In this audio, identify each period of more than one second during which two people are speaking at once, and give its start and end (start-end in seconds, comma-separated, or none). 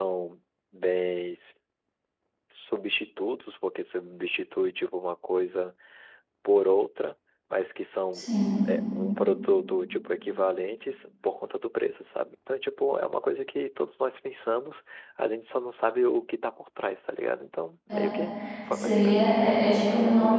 none